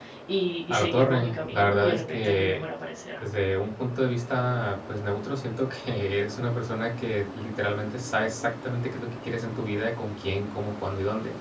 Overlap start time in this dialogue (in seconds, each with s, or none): 0.7 s